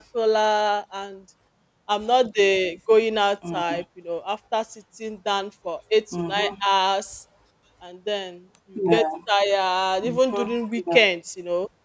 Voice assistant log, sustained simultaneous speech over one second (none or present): none